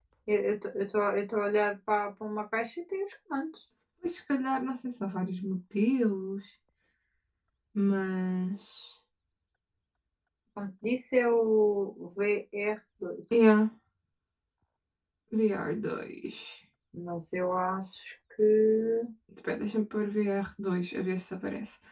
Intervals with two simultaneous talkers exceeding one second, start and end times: none

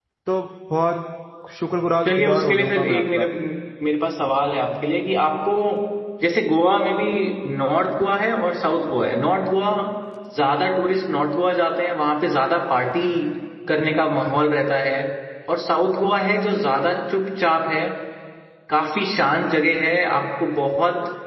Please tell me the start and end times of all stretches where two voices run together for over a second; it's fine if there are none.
2.0-3.2

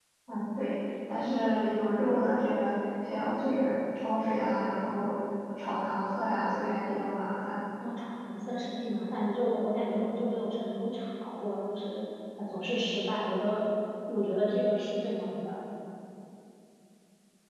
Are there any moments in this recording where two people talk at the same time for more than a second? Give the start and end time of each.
none

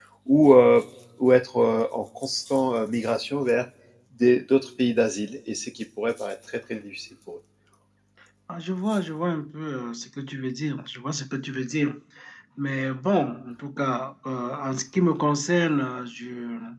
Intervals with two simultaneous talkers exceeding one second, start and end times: none

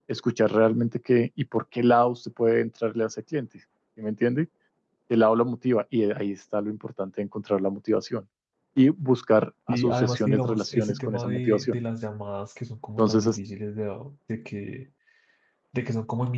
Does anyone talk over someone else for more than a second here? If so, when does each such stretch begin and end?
9.7-11.8

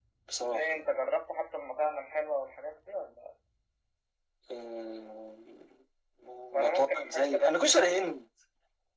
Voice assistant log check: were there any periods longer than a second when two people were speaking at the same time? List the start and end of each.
6.6-8.1

